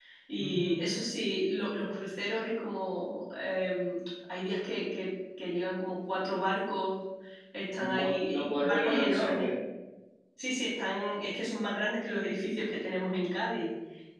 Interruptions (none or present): present